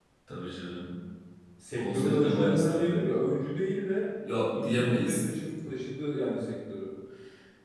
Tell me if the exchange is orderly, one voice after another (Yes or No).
No